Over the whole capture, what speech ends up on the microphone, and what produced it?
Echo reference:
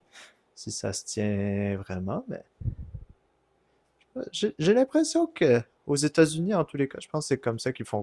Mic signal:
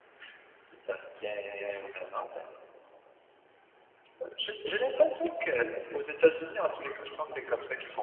echo only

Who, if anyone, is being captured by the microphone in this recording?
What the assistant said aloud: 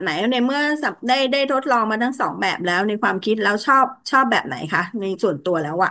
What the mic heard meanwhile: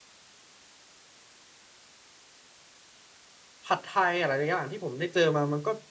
user only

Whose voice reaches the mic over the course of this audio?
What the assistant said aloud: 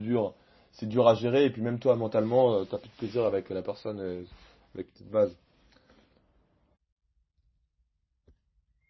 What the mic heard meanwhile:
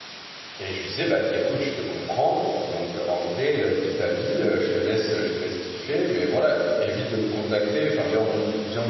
user only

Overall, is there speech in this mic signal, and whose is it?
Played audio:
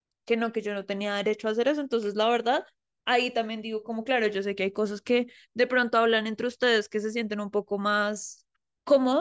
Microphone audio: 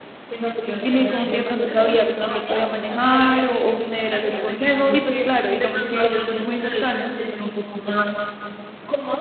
both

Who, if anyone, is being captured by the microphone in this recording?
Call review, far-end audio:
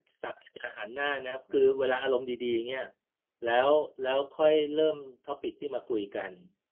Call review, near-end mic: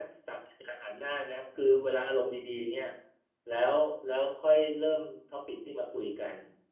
echo only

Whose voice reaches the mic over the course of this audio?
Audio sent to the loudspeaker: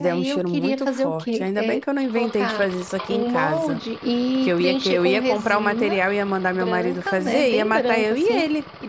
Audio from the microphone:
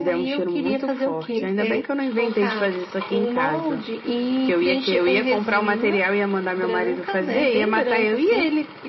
echo only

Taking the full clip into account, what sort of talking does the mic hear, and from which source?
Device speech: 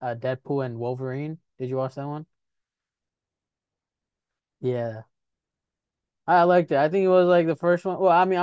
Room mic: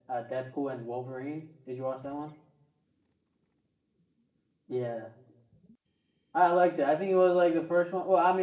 echo only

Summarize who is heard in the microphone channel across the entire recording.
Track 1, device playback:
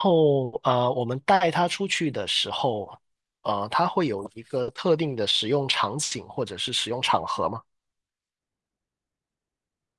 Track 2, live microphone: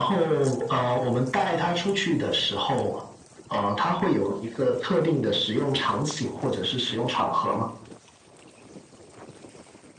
echo only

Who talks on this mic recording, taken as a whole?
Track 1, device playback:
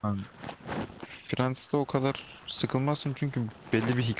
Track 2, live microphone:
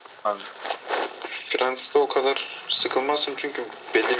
echo only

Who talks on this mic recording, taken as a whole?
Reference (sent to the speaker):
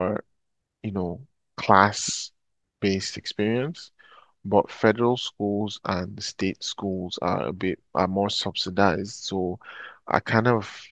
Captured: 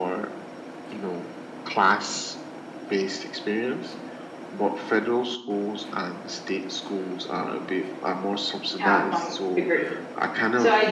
both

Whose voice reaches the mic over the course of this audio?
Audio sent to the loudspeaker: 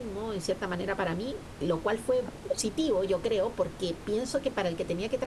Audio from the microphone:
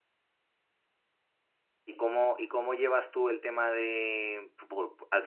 user only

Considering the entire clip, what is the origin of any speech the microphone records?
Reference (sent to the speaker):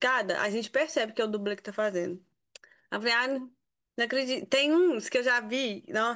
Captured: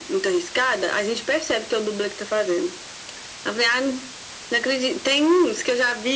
echo only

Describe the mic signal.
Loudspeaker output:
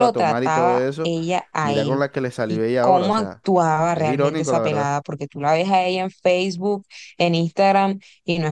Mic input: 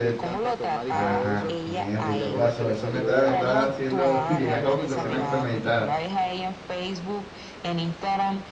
both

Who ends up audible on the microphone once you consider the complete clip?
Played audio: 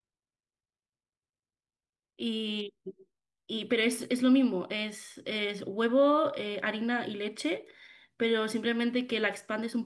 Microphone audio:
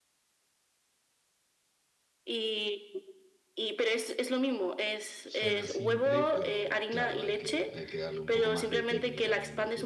both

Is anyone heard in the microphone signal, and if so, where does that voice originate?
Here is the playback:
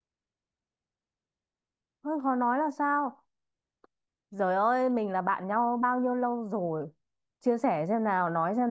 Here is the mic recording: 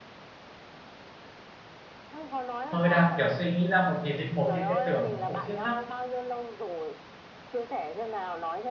both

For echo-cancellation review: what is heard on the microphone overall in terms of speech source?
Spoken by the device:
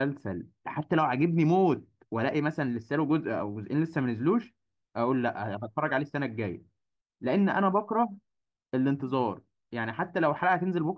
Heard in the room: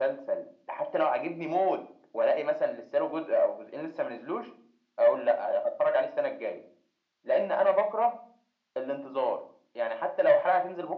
echo only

